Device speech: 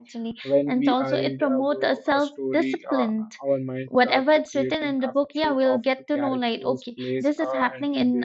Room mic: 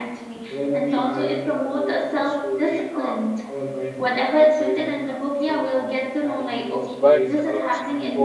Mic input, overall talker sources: both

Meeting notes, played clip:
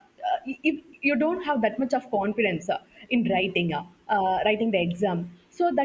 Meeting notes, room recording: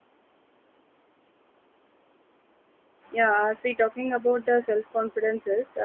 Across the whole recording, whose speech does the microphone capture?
user only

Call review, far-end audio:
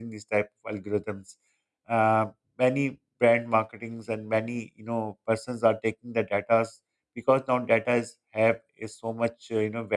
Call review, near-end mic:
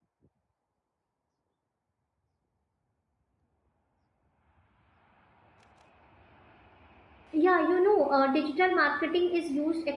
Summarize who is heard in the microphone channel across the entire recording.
user only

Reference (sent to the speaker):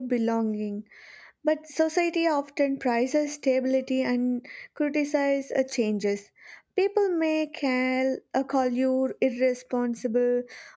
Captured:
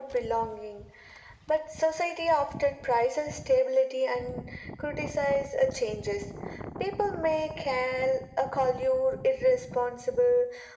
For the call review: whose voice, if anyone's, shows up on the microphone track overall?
echo only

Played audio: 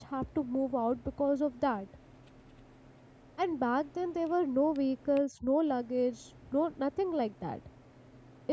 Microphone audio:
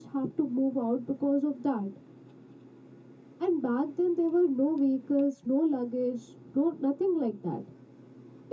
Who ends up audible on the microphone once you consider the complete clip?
echo only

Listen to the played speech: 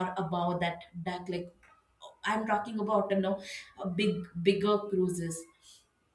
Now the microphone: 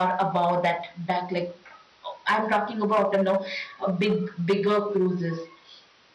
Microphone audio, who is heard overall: echo only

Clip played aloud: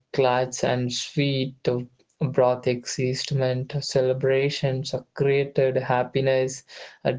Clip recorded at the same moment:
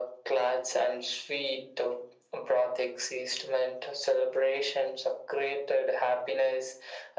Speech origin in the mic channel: echo only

